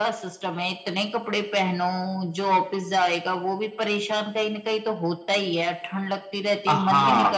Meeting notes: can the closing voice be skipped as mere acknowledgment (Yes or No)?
No